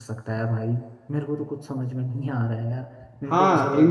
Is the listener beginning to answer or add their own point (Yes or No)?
Yes